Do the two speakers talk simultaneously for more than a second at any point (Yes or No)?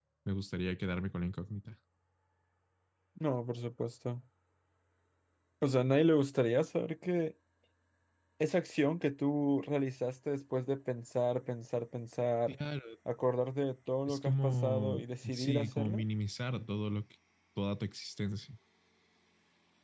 Yes